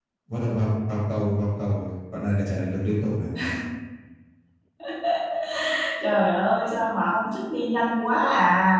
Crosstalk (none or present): none